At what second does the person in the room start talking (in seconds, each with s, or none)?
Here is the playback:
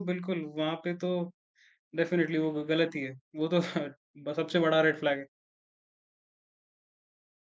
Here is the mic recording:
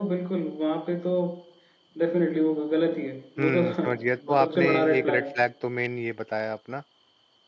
3.4 s